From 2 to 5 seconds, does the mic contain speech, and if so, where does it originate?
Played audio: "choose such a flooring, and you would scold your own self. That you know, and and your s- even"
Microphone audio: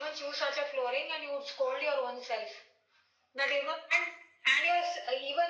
echo only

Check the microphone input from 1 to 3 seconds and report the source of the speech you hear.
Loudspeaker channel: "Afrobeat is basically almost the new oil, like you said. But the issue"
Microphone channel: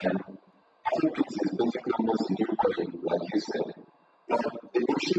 echo only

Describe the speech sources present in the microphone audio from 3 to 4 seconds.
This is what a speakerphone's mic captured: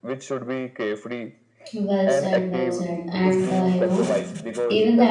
both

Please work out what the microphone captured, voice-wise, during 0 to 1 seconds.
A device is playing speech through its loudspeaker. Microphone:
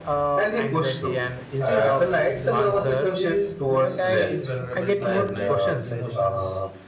echo only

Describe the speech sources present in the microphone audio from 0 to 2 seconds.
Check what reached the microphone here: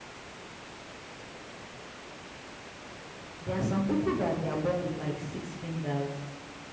neither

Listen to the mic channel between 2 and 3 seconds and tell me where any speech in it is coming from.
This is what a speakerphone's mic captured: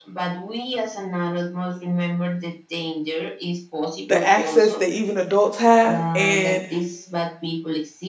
echo only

